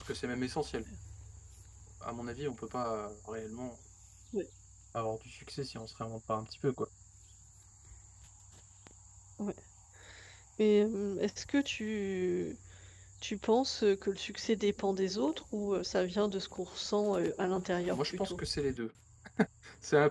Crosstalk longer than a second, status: none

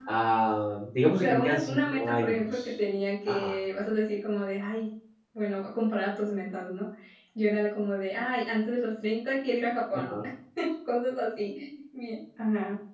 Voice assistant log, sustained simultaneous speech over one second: present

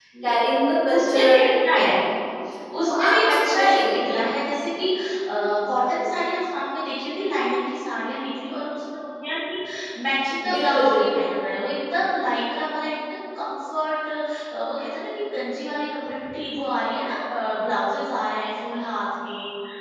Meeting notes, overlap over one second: present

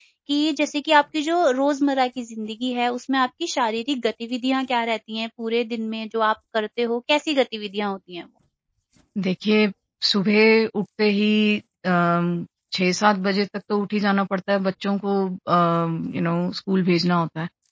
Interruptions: none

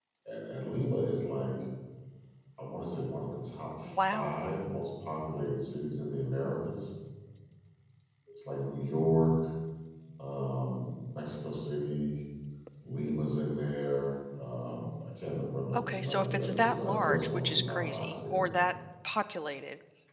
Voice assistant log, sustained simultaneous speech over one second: present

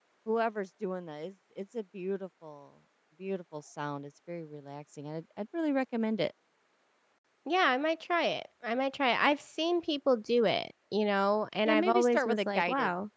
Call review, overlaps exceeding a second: present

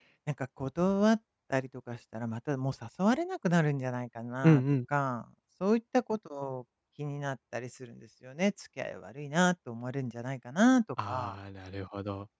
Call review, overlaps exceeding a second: none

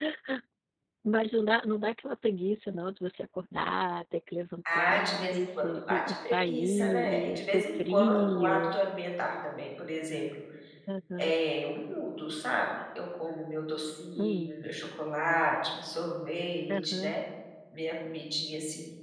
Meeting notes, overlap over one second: present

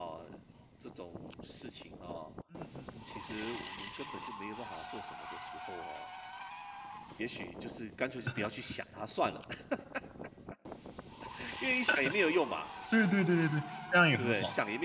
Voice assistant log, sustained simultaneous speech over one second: none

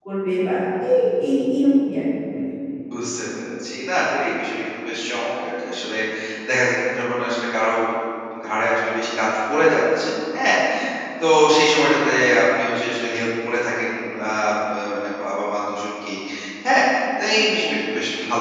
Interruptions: none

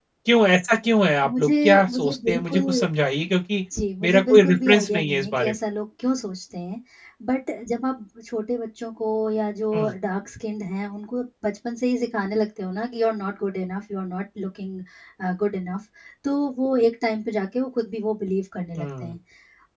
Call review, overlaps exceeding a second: present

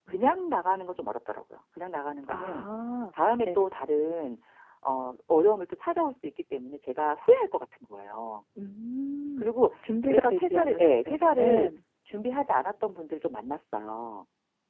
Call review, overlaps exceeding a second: present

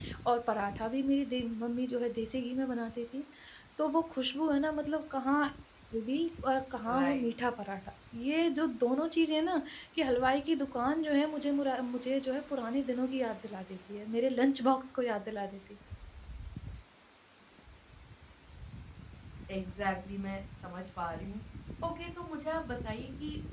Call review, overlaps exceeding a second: none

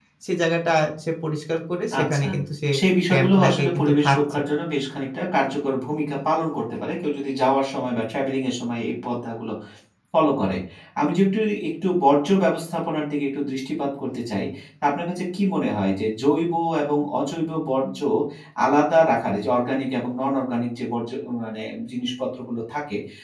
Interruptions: present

